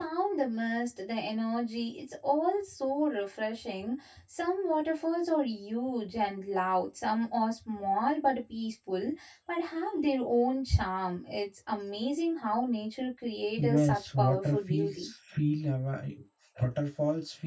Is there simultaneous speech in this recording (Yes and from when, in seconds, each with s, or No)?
Yes, from 13.6 s